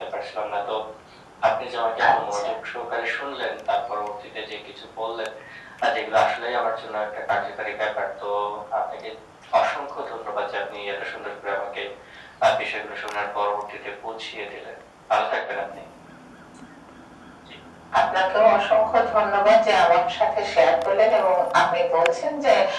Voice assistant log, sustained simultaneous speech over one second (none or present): none